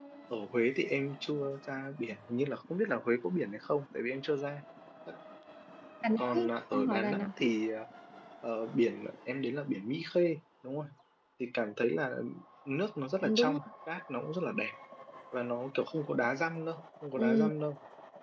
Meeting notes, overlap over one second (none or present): present